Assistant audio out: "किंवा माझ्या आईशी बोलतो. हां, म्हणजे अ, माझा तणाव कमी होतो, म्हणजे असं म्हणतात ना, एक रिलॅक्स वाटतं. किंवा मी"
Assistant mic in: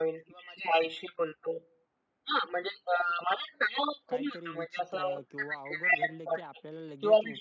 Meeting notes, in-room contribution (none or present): present